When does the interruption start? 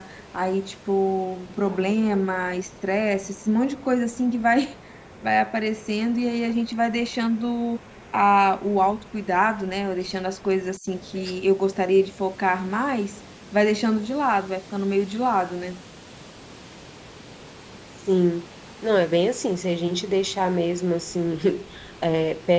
none

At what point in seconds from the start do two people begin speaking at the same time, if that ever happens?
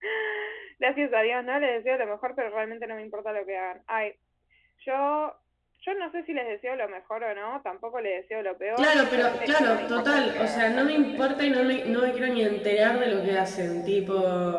8.8 s

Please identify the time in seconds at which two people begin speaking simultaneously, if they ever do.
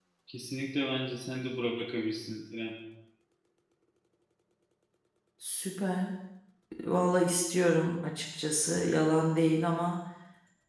none

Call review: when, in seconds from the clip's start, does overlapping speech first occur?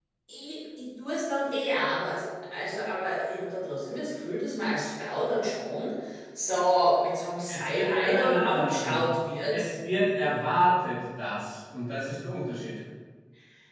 7.5 s

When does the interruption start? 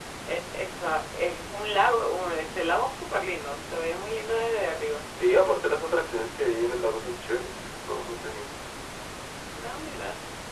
none

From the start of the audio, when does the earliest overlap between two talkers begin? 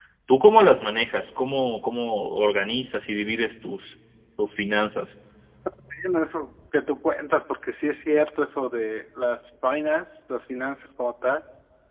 none

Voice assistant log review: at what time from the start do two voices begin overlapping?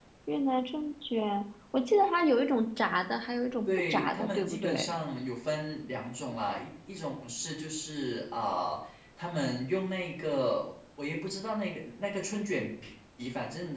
3.7 s

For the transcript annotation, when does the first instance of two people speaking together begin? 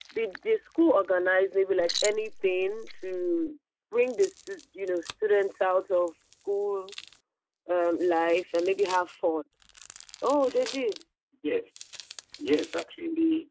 none

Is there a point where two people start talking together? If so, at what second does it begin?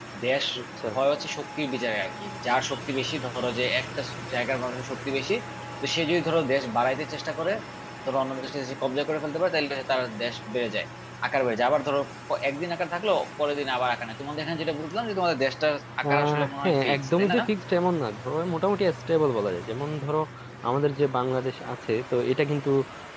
16.0 s

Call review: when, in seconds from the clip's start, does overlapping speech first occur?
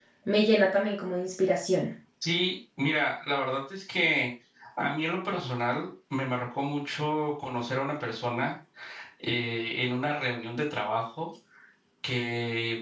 none

